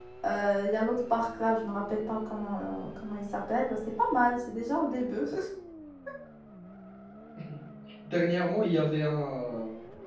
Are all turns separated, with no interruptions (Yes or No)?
Yes